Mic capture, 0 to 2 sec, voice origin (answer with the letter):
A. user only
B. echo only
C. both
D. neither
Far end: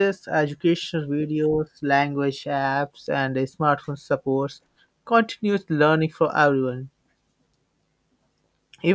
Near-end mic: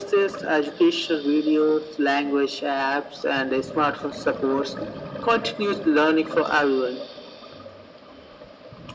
B